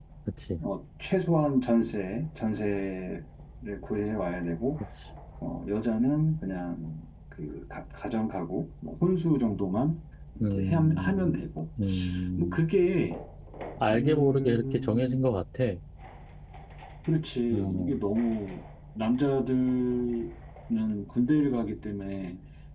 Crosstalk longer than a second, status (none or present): present